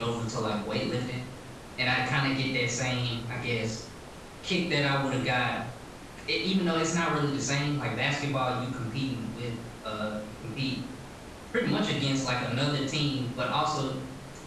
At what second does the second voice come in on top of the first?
none

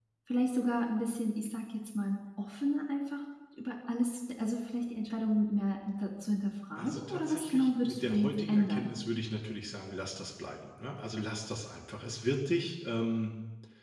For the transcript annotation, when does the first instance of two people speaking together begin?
6.8 s

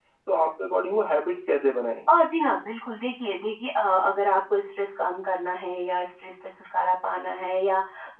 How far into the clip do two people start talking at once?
none

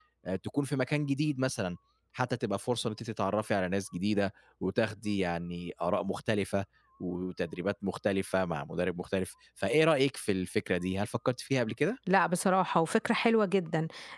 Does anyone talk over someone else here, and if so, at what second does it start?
none

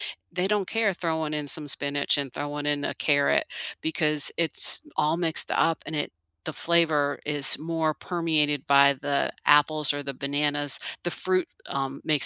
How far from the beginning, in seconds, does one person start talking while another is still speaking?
none

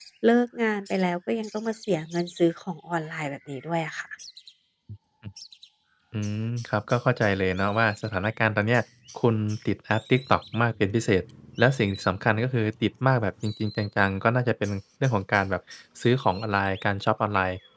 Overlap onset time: none

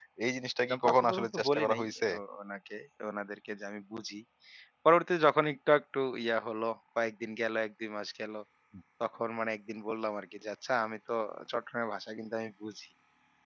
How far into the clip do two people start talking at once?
0.7 s

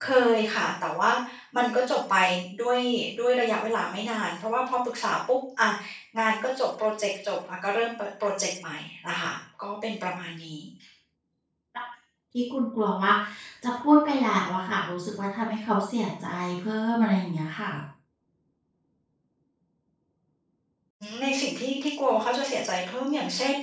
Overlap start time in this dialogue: none

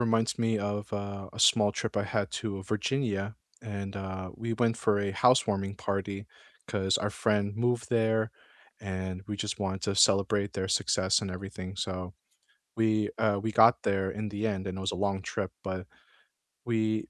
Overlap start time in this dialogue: none

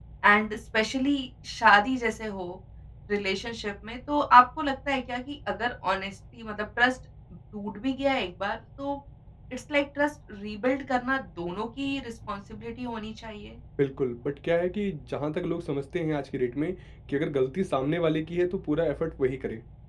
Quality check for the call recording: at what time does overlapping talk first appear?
none

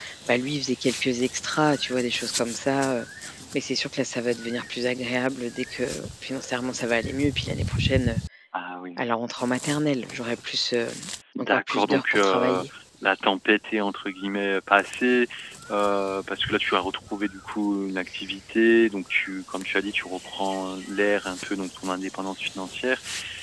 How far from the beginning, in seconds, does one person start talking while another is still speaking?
11.3 s

